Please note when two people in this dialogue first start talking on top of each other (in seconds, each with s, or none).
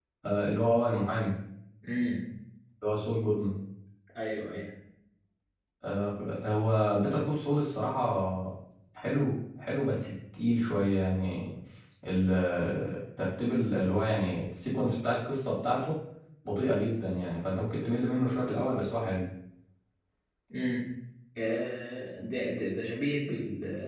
none